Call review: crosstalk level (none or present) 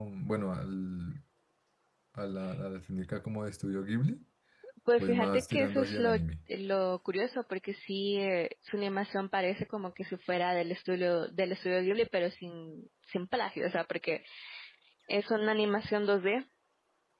present